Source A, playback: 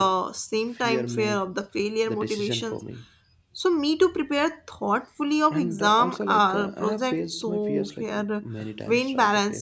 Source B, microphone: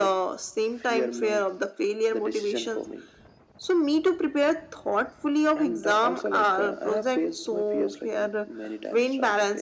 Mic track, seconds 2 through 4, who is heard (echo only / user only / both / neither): echo only